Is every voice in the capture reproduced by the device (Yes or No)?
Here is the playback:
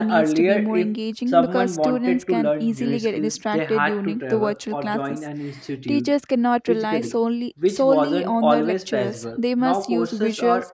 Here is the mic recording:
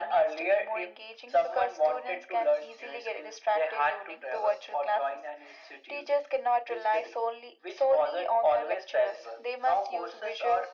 Yes